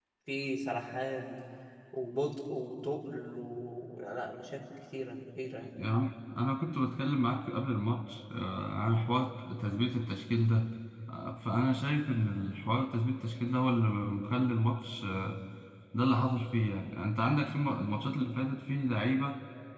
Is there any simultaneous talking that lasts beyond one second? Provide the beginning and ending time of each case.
none

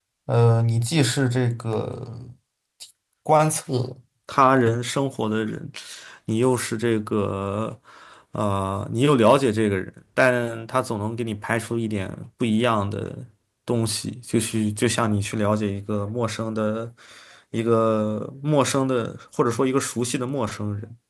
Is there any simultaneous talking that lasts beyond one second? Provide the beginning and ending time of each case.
none

